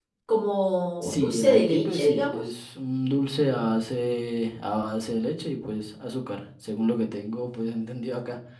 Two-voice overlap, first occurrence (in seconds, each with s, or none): 1.0 s